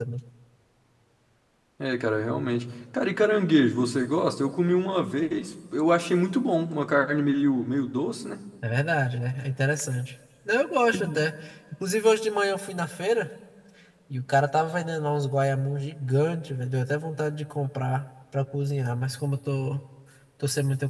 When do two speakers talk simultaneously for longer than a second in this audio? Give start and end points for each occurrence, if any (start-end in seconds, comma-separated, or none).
none